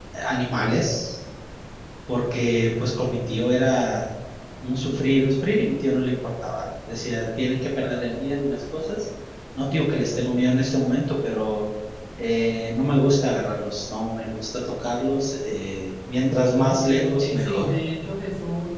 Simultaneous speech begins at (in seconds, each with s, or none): 16.5 s